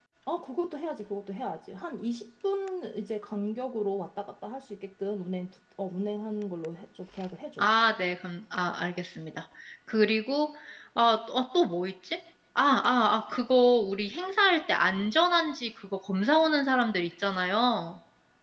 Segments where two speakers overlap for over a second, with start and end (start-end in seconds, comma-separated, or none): none